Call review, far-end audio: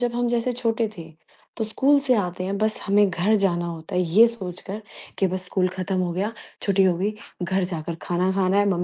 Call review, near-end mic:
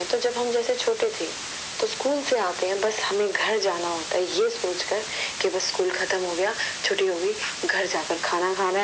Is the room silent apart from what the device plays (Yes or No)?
Yes